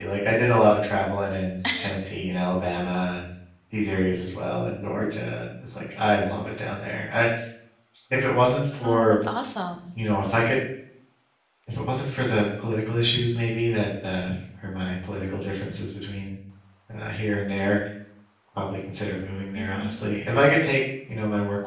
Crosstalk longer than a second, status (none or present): none